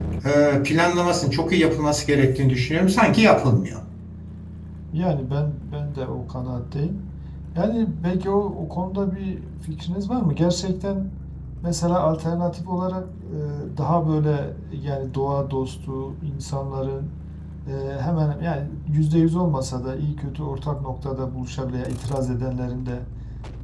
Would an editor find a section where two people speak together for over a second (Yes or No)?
No